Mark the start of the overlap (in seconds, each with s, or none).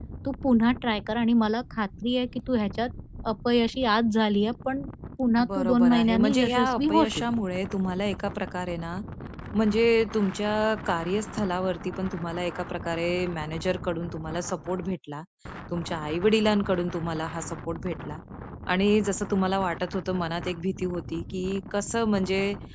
5.4 s